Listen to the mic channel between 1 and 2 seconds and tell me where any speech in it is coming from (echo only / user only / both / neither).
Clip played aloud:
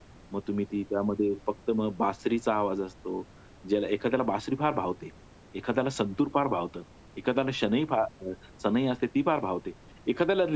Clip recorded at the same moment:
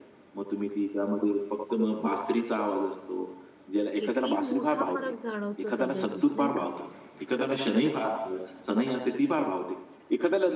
echo only